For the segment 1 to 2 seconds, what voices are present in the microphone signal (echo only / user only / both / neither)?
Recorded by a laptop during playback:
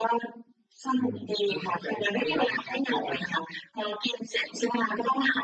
both